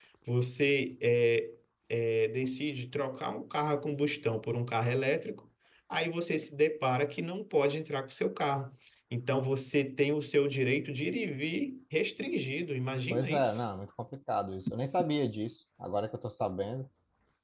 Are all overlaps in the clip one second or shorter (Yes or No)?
Yes